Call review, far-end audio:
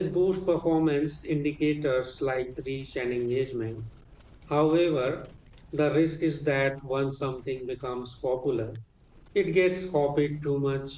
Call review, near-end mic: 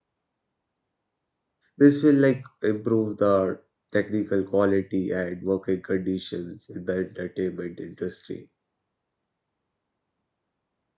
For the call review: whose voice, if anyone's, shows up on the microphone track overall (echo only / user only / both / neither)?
user only